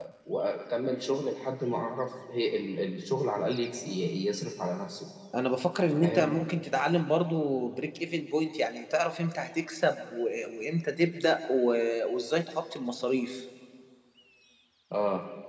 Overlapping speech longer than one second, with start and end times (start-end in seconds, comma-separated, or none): none